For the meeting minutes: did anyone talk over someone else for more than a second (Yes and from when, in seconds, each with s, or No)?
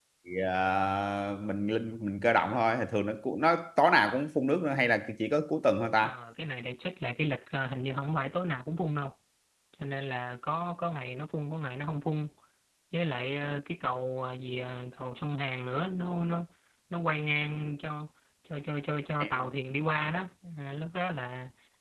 No